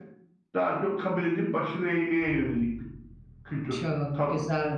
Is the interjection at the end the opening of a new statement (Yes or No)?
Yes